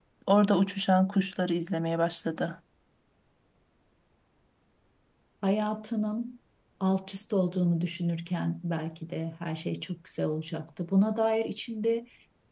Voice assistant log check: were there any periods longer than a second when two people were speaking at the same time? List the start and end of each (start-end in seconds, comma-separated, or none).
none